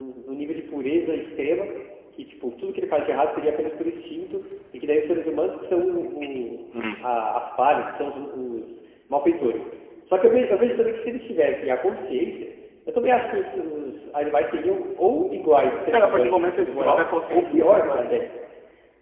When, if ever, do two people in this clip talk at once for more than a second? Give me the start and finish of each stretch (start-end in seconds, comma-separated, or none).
15.9-18.3